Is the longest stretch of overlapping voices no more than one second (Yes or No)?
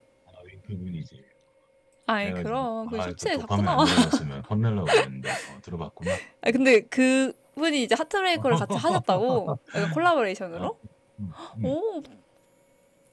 No